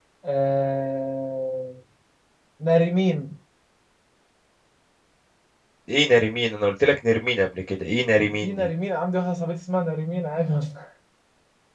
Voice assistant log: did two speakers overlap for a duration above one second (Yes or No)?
No